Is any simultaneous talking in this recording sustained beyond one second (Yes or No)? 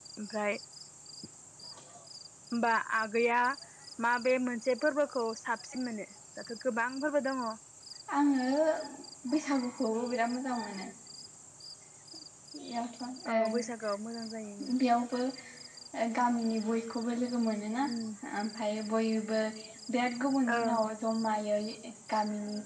No